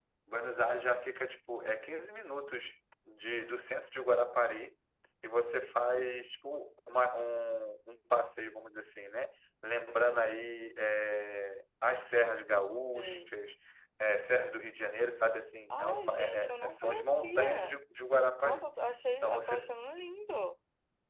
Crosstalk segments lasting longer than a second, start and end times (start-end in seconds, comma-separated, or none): 15.7-17.7